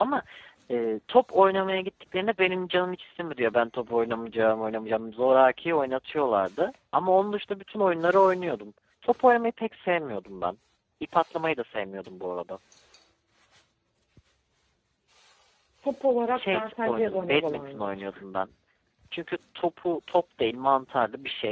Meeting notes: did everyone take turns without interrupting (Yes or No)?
No